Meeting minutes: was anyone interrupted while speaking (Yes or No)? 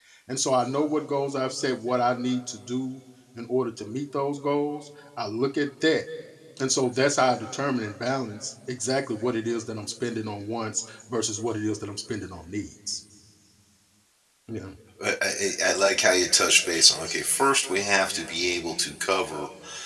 No